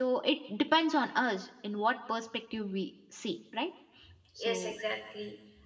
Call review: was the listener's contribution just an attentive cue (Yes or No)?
No